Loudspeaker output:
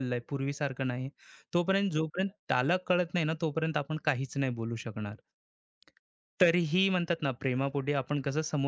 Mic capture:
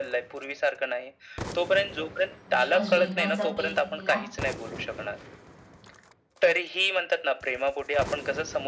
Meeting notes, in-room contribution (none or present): present